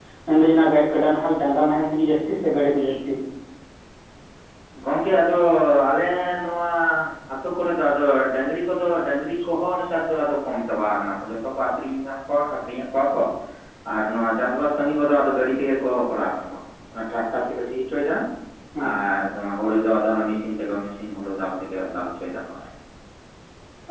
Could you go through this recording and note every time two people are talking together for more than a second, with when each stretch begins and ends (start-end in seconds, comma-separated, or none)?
none